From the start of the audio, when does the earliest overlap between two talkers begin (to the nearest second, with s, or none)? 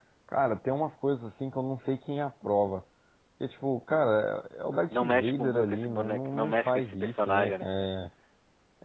5 s